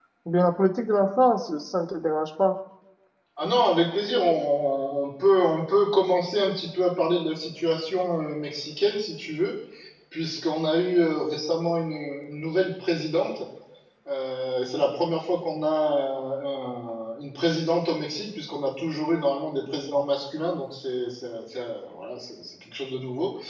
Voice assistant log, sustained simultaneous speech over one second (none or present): none